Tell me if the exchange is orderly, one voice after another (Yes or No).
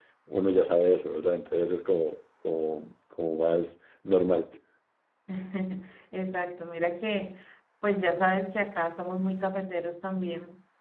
Yes